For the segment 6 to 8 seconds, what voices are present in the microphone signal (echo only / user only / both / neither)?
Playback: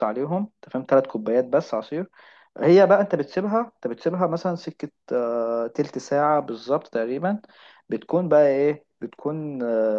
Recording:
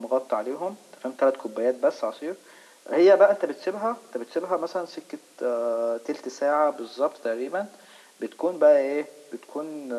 echo only